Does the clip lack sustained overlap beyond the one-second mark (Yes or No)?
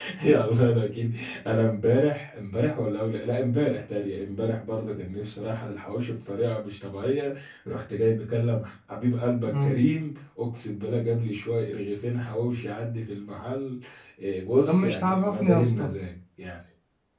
No